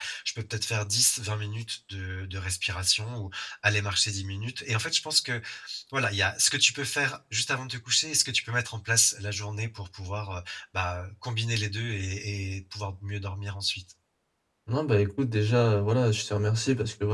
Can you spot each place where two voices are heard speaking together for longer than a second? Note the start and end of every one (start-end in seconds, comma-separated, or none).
none